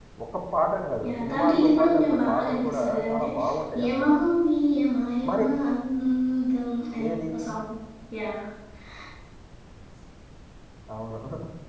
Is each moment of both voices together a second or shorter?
No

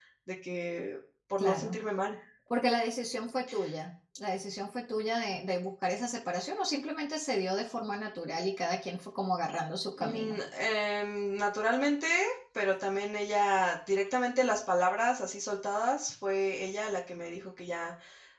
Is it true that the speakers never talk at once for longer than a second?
Yes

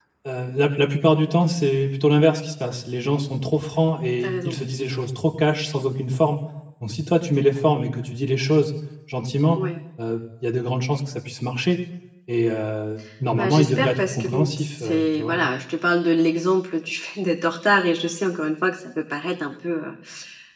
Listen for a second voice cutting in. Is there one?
Yes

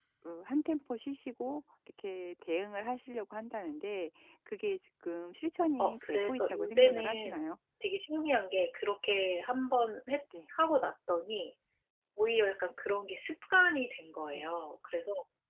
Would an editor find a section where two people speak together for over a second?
Yes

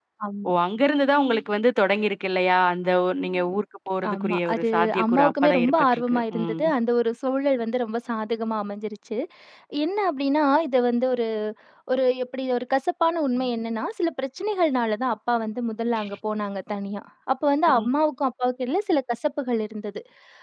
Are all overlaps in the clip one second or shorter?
No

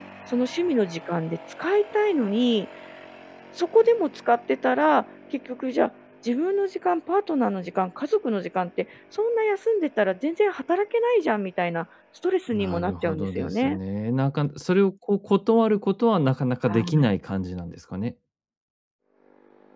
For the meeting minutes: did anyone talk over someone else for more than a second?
Yes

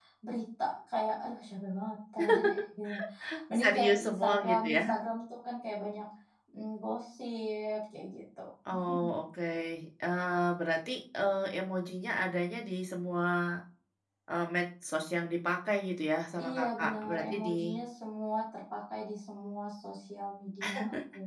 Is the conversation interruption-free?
No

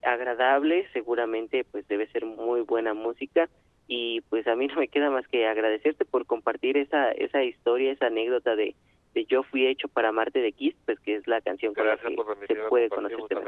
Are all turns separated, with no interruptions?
No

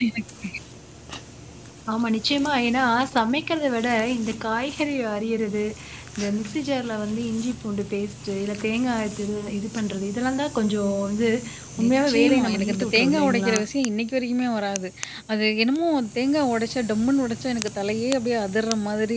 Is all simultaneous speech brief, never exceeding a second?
No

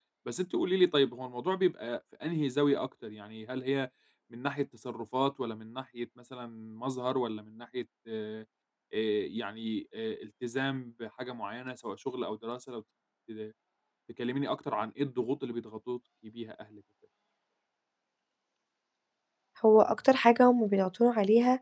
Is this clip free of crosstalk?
Yes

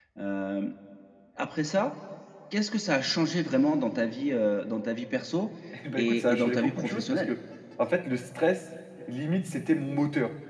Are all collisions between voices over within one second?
No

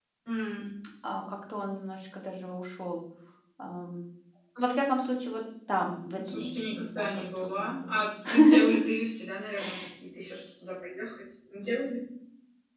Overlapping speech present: Yes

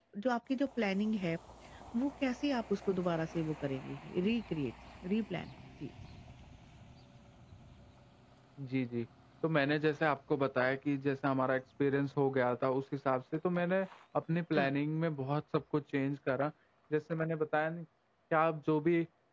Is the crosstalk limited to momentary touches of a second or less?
Yes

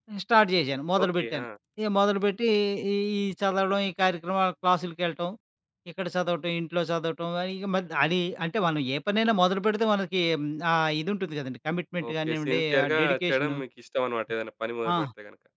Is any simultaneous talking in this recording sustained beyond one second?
Yes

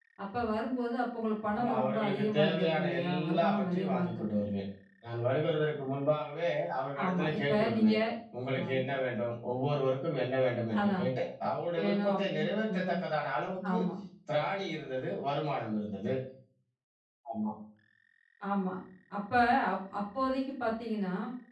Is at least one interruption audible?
Yes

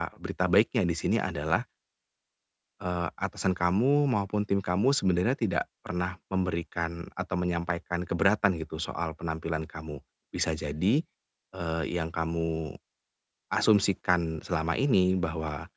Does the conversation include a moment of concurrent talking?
No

